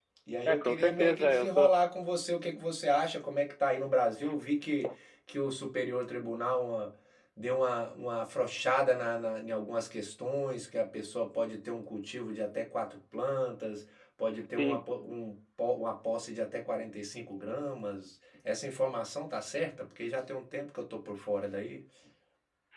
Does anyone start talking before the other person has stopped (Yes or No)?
Yes